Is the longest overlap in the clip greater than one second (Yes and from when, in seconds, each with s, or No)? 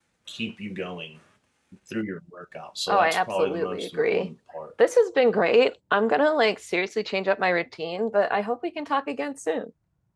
Yes, from 2.9 s